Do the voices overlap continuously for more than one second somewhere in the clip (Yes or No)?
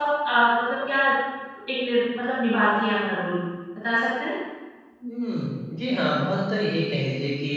No